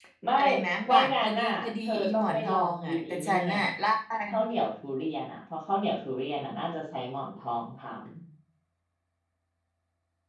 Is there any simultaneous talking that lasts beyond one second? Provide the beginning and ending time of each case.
0.9-3.5

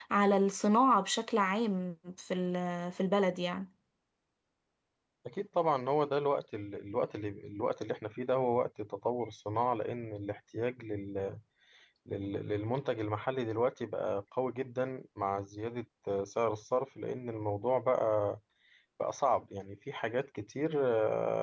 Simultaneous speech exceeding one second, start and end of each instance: none

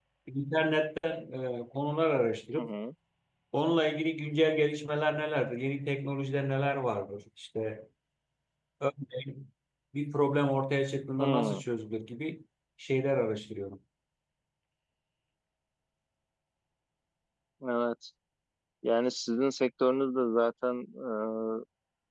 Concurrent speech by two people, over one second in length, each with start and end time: none

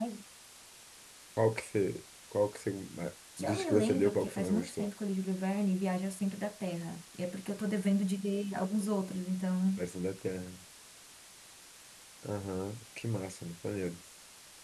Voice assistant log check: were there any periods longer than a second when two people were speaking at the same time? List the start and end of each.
3.4-4.9

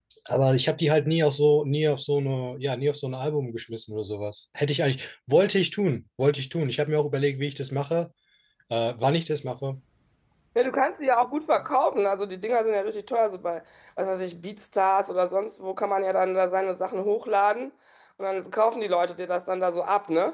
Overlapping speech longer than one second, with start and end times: none

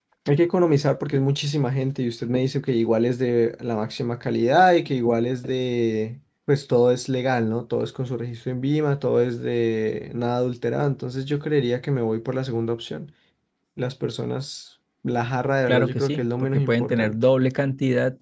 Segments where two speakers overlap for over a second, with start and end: 15.7-17.1

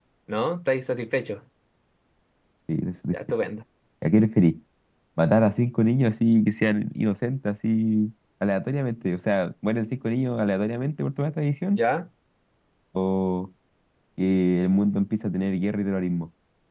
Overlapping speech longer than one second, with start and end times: none

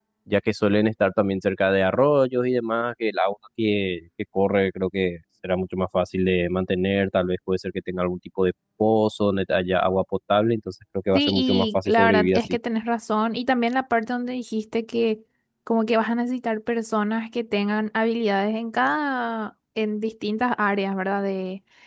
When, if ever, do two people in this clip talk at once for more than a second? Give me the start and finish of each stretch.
11.1-12.6

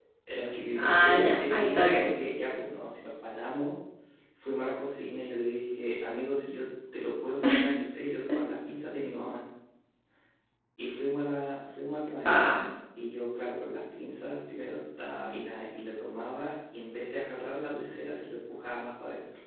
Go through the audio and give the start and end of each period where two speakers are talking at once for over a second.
0.7-2.1

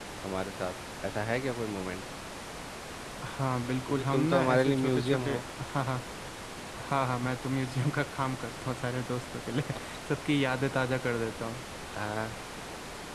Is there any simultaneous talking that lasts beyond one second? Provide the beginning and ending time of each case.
3.9-5.4

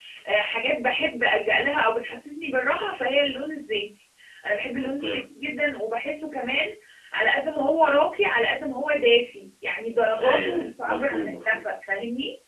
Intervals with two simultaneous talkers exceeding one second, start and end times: 10.2-11.6

